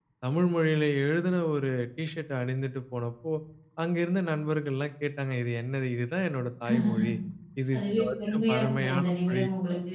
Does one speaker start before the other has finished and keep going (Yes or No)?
Yes